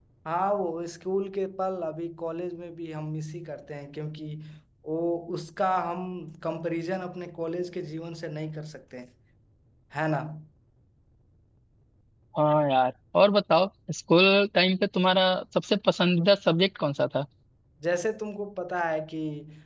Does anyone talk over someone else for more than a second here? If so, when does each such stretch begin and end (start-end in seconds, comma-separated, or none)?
none